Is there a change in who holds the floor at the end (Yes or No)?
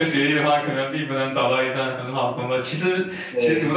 No